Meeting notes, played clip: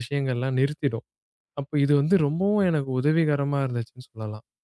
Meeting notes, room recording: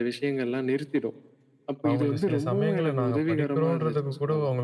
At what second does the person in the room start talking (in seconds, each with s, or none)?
1.9 s